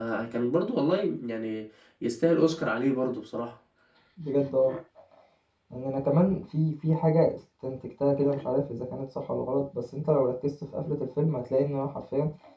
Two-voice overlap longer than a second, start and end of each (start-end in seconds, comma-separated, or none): none